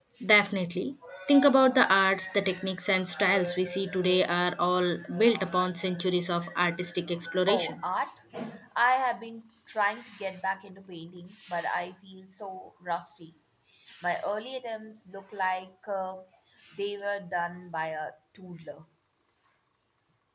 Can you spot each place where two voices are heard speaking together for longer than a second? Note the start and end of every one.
none

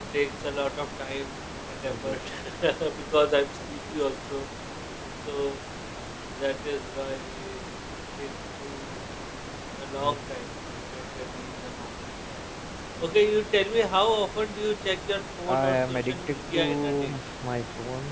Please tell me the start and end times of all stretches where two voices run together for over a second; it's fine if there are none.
15.5-17.1

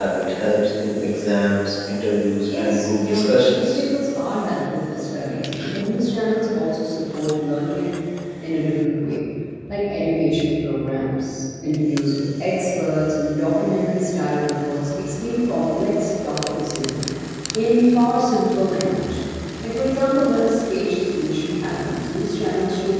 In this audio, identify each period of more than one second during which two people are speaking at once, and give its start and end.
2.5-3.9

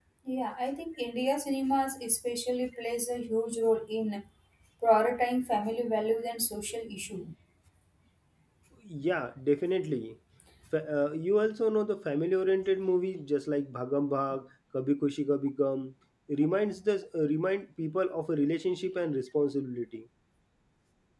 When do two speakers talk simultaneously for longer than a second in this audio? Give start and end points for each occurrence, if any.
none

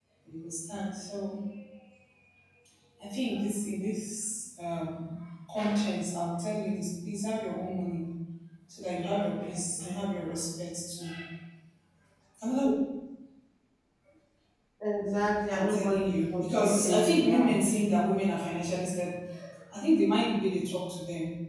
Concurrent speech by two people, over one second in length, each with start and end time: 15.5-17.6

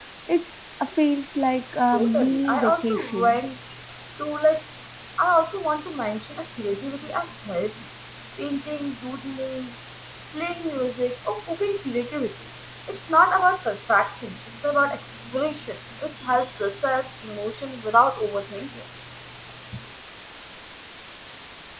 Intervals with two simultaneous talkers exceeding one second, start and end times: 1.9-3.4

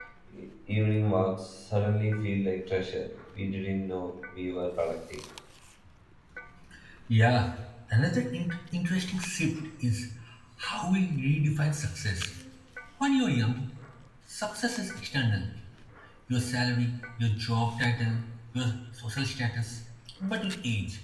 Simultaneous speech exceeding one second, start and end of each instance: none

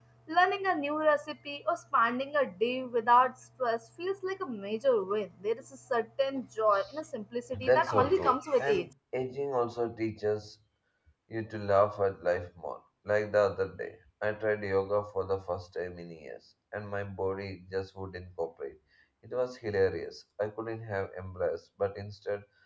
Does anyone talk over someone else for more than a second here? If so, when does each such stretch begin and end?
7.6-8.9

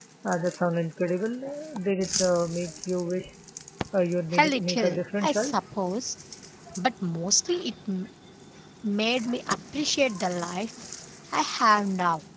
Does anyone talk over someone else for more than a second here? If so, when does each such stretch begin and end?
4.4-5.7

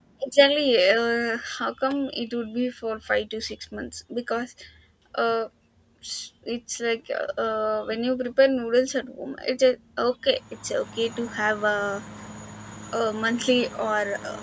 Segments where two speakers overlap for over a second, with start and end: none

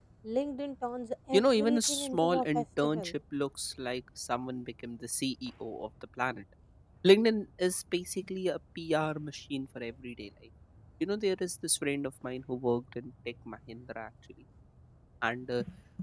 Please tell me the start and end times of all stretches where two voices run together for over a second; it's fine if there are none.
1.3-3.1

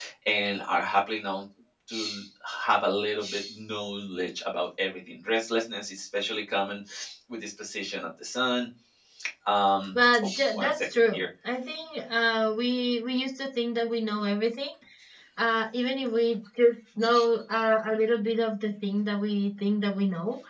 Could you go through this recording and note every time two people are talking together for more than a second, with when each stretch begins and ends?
9.9-11.2

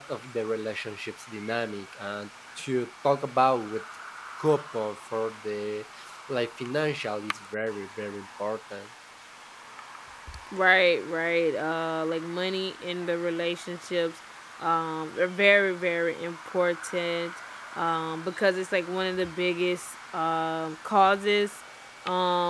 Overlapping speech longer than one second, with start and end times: none

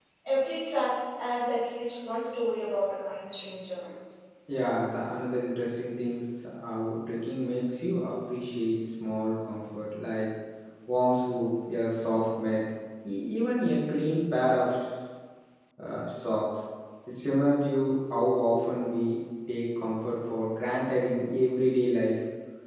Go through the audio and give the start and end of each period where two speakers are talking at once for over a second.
none

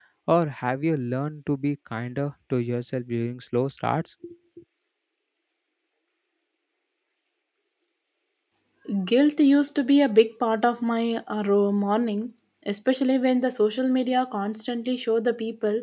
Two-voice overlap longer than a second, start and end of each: none

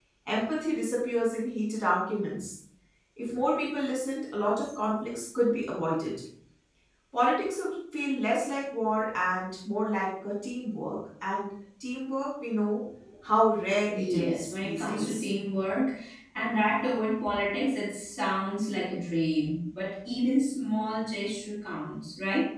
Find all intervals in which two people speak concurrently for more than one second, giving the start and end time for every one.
13.9-15.3

